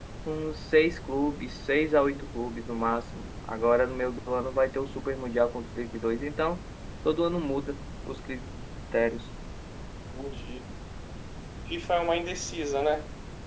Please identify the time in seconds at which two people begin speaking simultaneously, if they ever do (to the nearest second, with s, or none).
none